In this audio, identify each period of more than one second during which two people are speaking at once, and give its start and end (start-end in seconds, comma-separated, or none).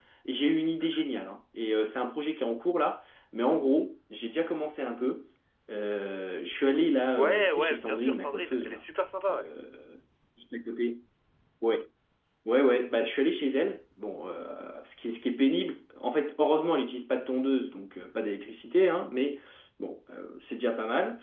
7.1-8.8